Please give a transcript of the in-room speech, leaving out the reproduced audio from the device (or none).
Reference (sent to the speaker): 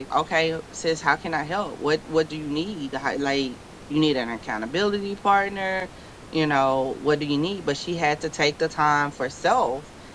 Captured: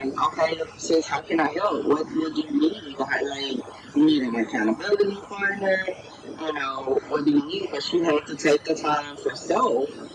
none